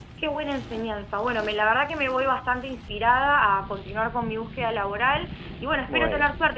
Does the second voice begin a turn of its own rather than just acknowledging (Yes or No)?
No